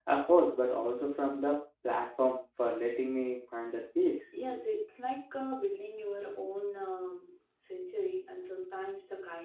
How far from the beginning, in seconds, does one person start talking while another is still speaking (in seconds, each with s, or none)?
none